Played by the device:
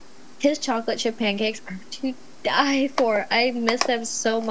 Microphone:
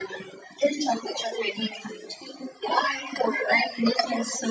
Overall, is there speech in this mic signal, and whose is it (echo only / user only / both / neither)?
echo only